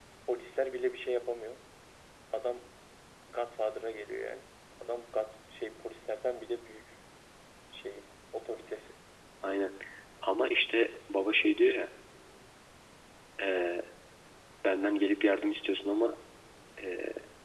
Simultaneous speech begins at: none

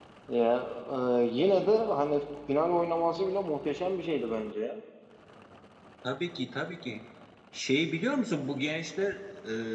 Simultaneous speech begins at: none

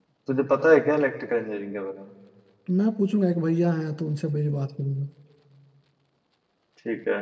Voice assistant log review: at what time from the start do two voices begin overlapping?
none

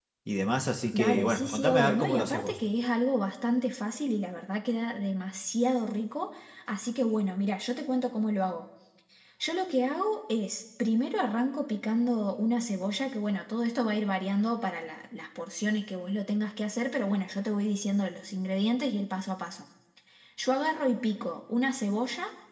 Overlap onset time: 0.9 s

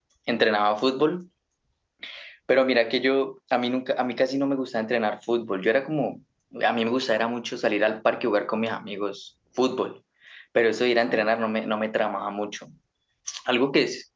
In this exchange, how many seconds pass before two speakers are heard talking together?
none

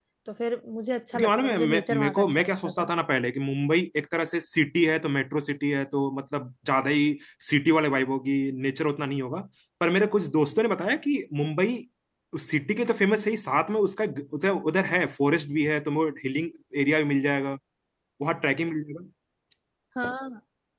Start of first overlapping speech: 1.1 s

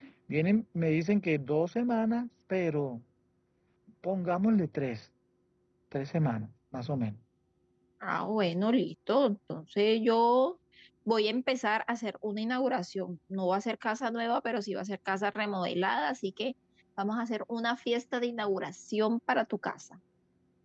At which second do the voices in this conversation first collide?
none

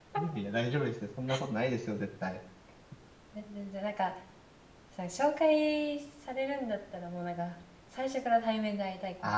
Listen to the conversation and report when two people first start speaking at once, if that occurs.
none

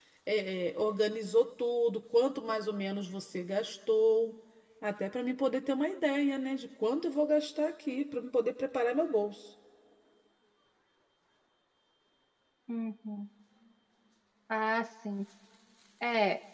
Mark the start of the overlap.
none

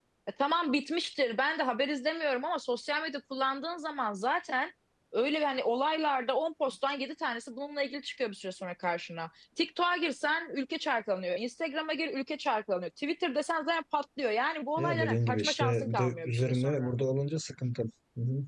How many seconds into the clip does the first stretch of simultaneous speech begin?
14.8 s

